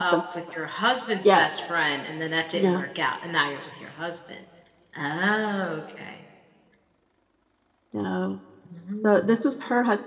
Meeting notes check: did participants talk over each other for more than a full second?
No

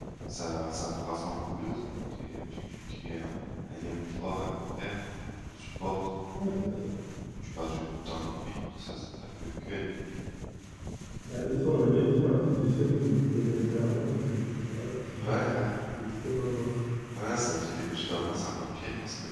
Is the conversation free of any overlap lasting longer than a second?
Yes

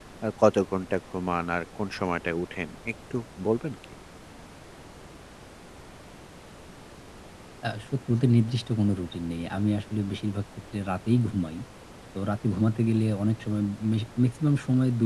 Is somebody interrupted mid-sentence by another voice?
No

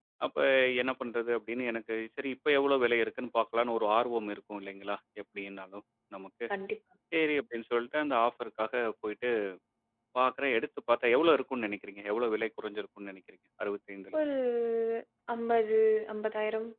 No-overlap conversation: Yes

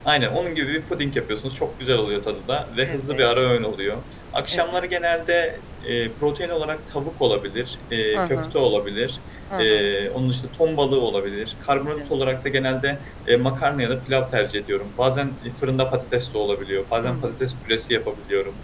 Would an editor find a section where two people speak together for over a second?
No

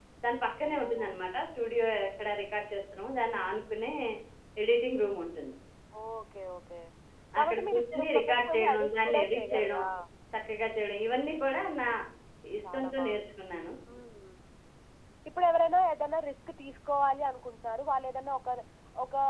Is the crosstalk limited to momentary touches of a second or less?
No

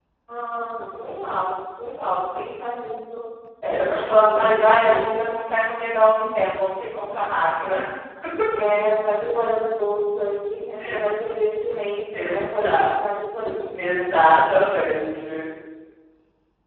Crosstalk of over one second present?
Yes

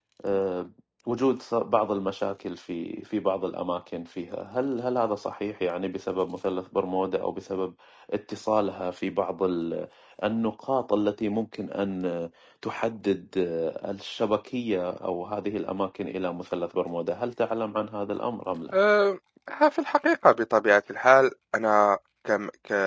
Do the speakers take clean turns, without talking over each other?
Yes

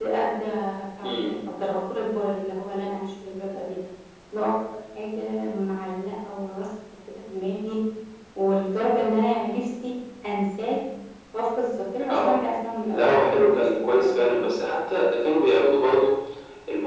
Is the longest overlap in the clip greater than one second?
Yes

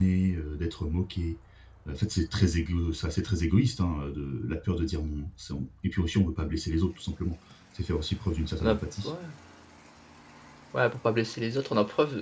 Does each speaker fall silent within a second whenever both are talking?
Yes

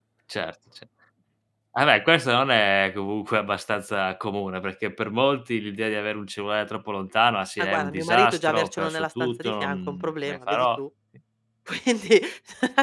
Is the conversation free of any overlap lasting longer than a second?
No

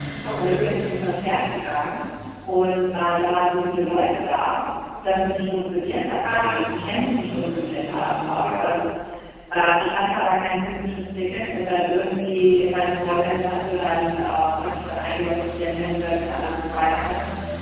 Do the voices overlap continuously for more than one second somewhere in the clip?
Yes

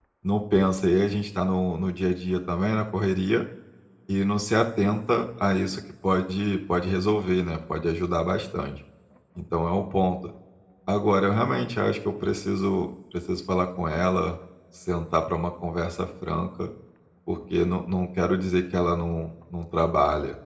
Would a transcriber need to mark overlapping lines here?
No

